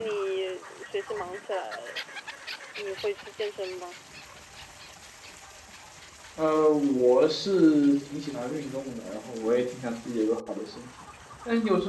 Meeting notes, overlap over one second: none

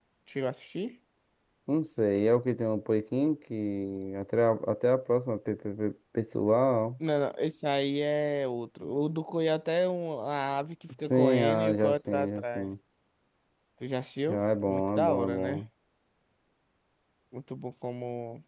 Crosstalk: present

